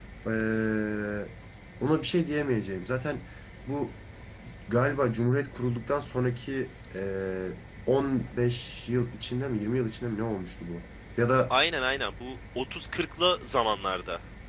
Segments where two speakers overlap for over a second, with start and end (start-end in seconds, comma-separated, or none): none